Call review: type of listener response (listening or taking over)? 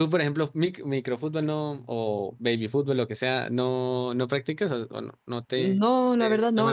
taking over